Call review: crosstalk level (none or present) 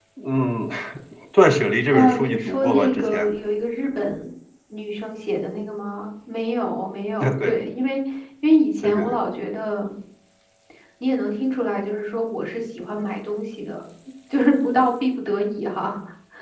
present